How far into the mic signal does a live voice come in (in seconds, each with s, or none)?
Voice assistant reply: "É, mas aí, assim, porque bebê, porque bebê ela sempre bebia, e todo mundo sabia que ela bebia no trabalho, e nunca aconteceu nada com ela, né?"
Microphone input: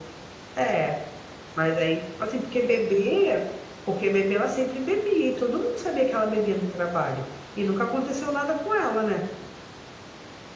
none